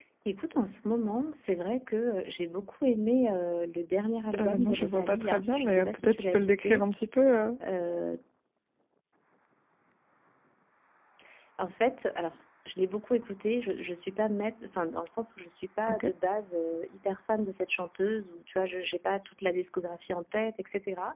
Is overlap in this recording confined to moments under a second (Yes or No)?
No